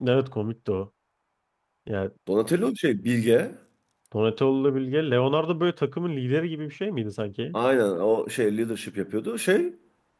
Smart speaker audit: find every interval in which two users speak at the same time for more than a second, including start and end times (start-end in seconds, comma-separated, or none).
none